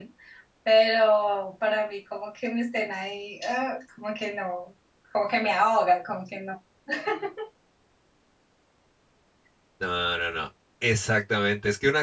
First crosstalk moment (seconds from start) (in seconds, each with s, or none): none